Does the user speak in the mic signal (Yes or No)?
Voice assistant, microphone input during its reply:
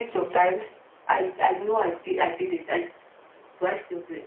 No